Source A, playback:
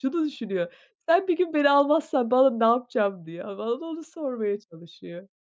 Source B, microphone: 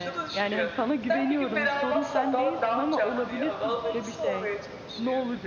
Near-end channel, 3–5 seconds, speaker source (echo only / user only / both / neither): both